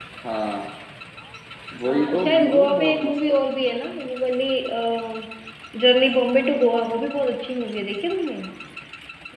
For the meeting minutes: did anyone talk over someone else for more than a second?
Yes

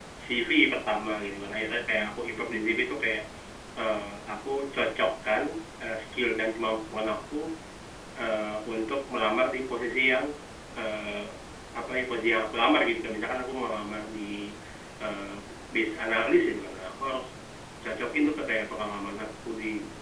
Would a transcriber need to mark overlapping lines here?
No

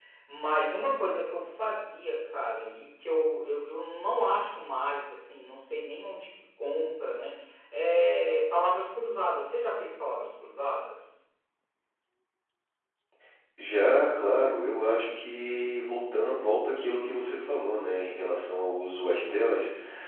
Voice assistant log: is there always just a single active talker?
Yes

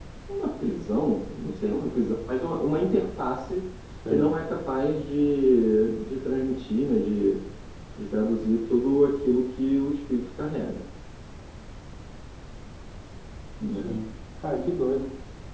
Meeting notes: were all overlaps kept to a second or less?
Yes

